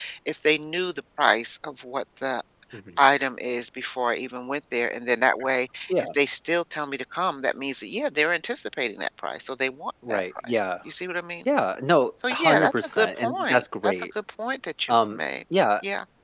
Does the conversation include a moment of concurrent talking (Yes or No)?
Yes